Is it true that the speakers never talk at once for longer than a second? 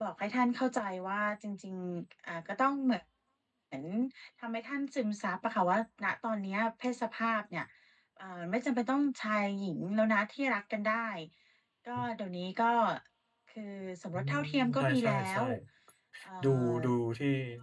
No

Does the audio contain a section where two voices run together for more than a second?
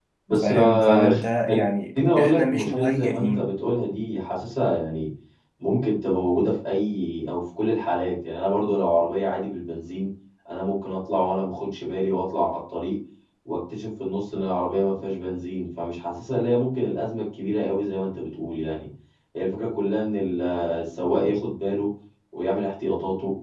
Yes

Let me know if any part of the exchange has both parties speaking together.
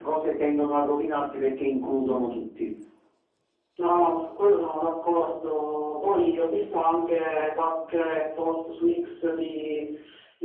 No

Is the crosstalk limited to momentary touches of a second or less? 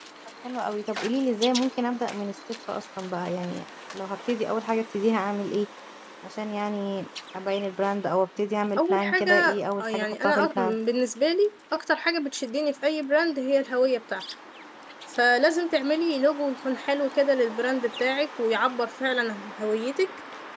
No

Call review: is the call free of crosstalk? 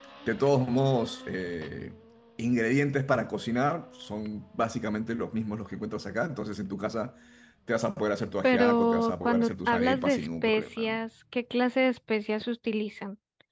No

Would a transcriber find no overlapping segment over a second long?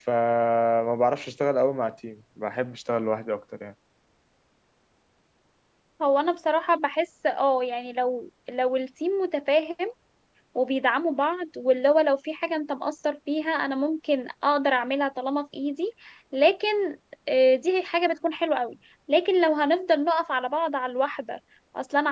Yes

